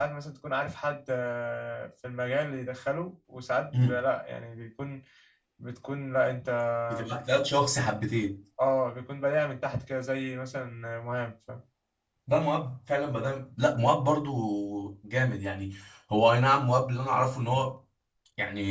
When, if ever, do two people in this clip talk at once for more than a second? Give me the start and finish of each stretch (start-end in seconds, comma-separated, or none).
none